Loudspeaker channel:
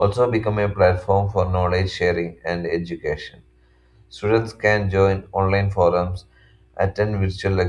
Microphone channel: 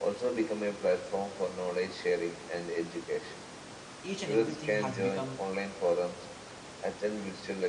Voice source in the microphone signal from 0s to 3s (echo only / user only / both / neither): echo only